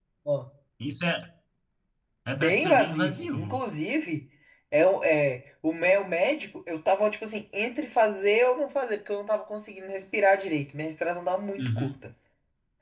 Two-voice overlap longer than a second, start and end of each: 2.3-3.6

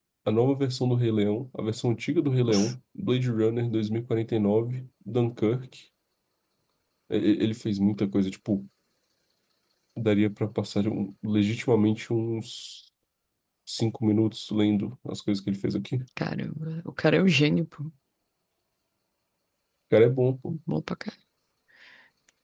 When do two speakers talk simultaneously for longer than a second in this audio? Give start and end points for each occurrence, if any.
none

